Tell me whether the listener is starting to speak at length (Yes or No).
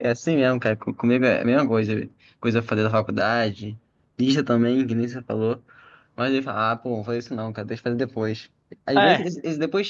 No